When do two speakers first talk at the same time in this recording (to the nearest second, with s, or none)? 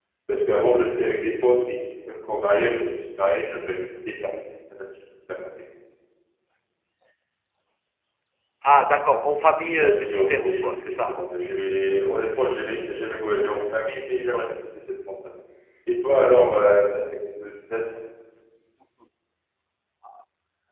10 s